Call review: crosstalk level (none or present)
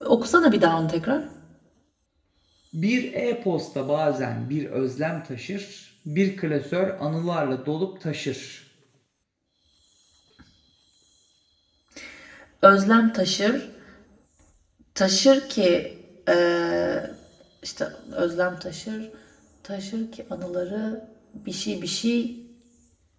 none